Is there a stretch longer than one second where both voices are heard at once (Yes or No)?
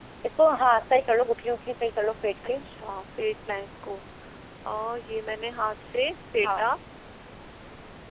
No